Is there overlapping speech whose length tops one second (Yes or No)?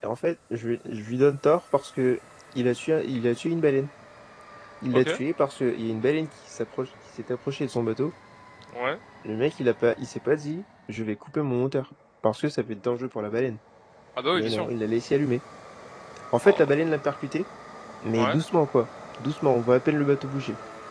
No